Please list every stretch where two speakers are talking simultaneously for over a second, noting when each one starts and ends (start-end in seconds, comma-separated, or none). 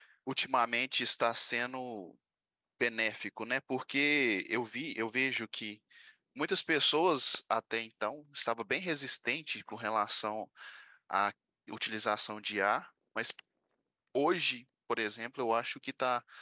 none